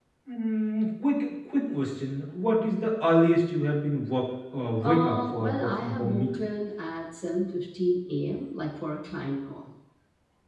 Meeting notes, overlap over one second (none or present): present